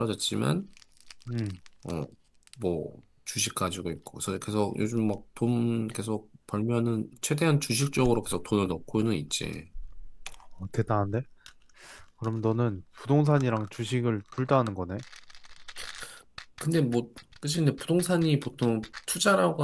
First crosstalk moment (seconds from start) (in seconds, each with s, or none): none